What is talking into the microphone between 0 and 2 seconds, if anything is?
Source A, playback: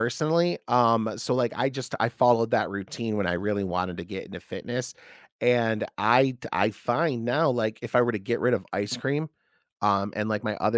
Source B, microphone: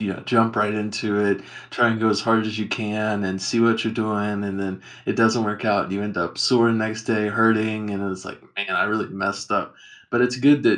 user only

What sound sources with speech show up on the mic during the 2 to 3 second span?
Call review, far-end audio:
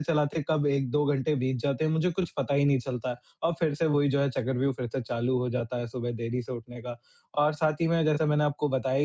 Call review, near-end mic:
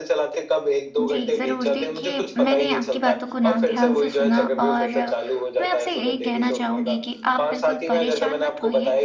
both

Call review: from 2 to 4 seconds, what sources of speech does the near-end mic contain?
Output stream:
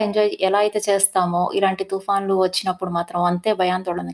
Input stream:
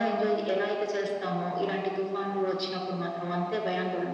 echo only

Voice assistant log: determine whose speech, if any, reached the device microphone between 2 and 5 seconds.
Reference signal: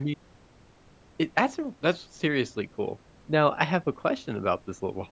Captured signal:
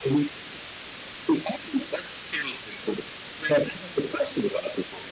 echo only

